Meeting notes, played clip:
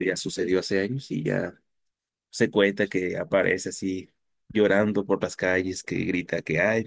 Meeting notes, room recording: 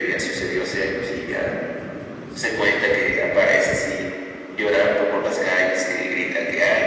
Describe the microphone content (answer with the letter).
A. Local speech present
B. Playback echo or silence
B